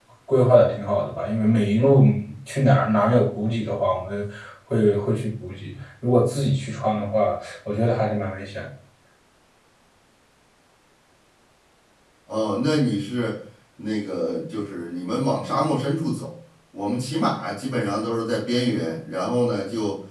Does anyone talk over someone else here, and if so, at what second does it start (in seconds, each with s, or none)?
none